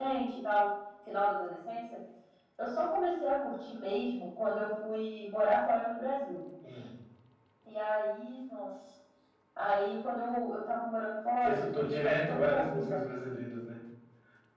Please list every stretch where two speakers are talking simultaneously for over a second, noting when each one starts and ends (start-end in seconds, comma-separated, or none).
11.4-13.0